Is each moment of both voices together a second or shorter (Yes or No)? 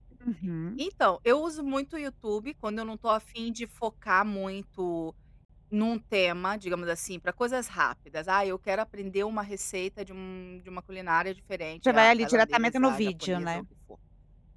No